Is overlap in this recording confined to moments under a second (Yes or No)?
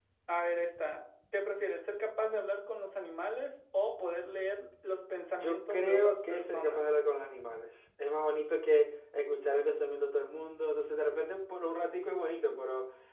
No